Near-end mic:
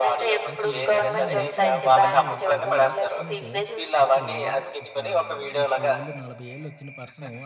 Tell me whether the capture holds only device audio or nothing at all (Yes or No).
No